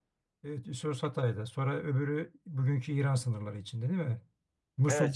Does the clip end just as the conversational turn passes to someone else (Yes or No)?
Yes